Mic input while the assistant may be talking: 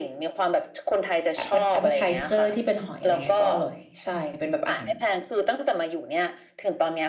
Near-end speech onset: 1.3 s

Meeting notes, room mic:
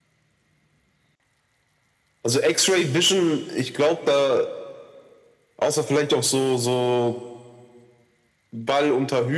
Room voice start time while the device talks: none

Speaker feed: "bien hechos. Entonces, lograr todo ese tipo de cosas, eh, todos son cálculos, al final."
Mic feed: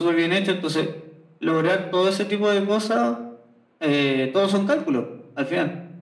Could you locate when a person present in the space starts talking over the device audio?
none

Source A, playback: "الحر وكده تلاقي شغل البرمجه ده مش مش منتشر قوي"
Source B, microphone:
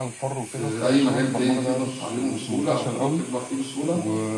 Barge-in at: 0.4 s

